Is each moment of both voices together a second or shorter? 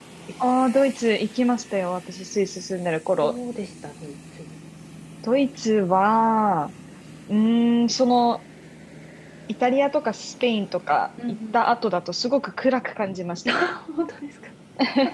Yes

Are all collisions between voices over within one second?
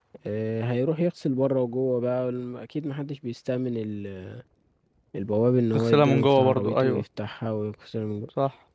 No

